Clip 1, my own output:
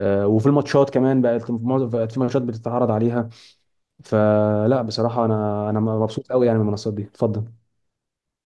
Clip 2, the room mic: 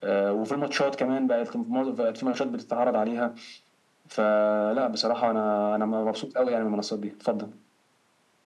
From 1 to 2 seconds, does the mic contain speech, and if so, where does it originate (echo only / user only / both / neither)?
echo only